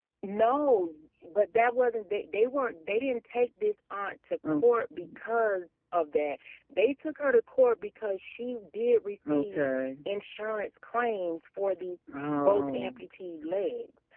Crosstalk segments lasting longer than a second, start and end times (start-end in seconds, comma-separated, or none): none